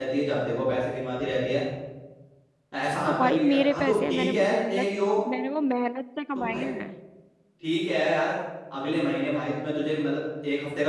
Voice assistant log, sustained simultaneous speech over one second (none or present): present